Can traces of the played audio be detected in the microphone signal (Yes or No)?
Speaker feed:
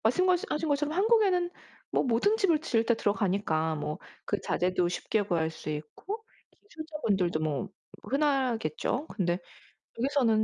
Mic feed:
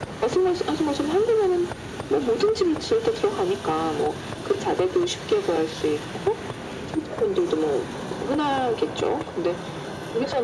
Yes